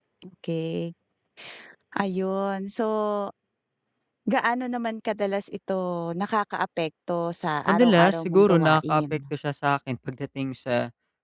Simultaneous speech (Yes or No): Yes